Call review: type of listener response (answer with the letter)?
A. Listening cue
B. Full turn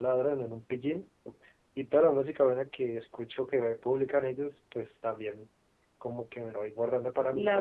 A